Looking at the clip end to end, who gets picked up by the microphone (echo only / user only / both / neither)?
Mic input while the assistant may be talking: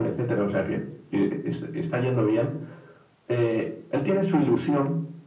echo only